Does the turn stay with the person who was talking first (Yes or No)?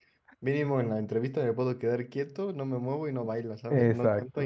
No